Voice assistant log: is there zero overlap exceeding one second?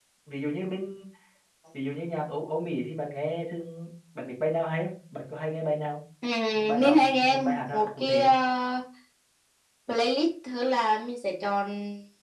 No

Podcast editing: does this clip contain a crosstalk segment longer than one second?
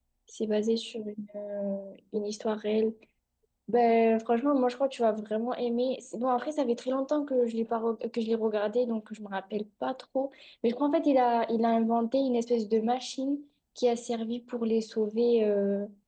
No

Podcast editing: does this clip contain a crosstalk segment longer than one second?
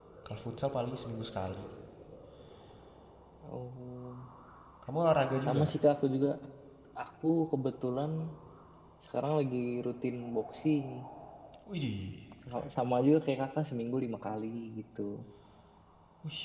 No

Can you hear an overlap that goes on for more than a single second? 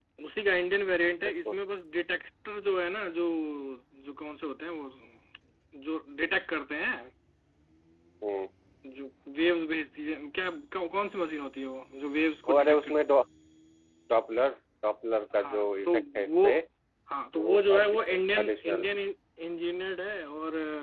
Yes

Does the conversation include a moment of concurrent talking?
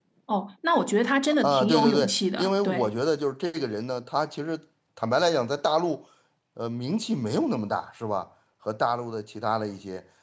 Yes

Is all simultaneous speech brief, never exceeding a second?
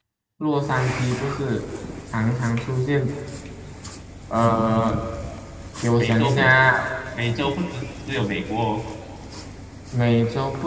Yes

